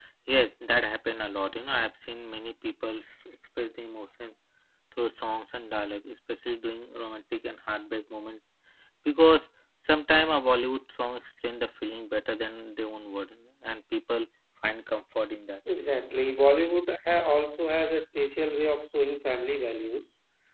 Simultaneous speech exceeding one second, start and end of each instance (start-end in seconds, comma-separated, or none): none